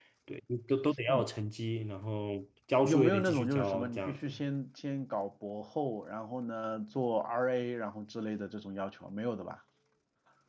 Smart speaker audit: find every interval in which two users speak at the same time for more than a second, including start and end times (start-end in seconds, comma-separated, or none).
2.8-4.3